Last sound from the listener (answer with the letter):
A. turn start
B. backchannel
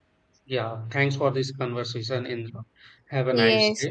A